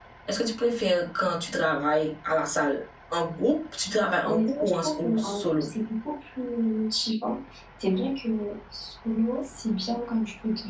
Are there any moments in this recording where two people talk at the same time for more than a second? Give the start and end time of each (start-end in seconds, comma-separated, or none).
4.2-5.7